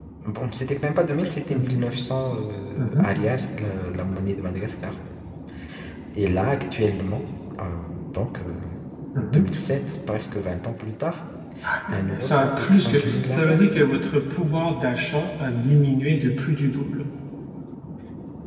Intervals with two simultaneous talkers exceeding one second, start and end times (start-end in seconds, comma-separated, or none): 11.9-13.6